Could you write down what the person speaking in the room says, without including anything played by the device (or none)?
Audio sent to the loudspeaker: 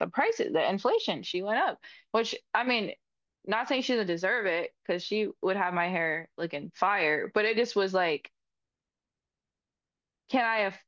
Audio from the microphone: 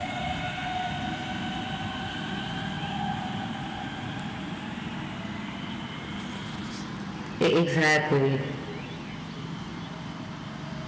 E- Exactly.